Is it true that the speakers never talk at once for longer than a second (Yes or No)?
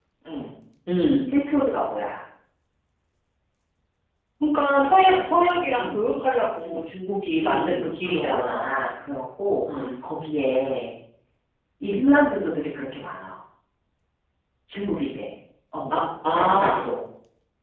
No